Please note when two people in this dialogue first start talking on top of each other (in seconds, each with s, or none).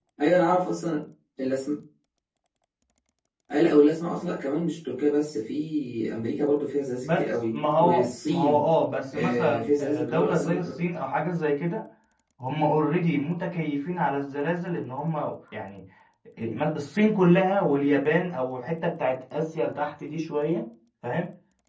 7.0 s